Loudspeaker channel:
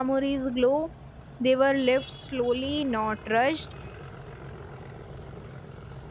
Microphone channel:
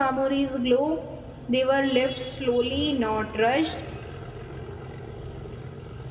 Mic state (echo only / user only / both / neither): echo only